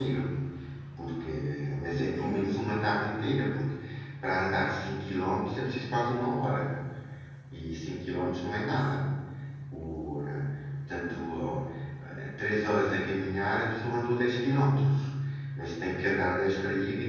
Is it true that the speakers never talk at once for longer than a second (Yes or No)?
Yes